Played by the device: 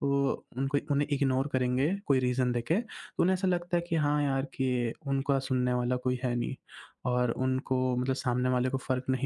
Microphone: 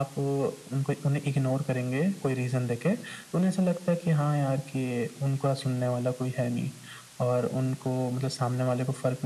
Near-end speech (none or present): none